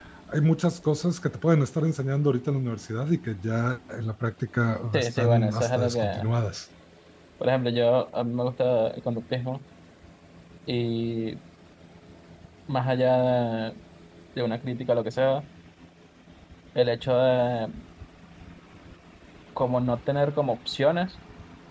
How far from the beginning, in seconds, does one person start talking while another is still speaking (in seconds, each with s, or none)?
4.9 s